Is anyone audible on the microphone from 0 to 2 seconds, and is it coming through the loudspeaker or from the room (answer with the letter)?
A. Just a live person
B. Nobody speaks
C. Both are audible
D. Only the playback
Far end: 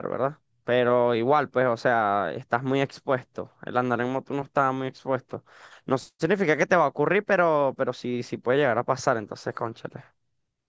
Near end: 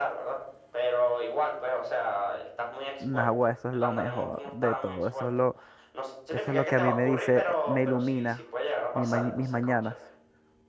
D